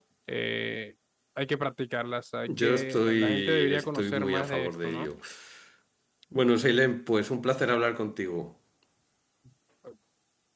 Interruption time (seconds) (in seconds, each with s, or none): 2.5 s